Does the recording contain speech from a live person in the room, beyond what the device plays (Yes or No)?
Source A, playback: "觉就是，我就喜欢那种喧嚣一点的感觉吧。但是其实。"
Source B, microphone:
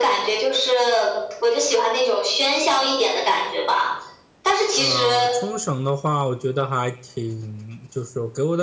Yes